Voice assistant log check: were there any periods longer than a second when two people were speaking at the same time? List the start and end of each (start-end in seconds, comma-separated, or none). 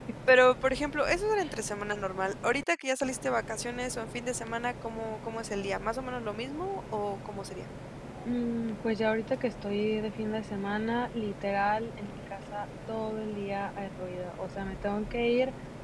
none